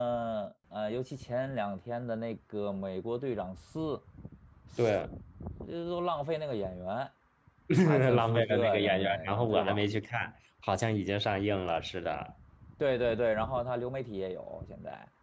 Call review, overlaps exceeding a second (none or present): present